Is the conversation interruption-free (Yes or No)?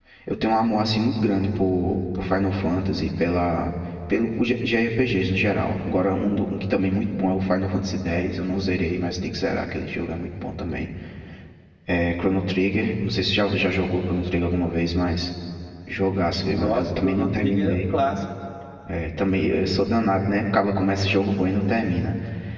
No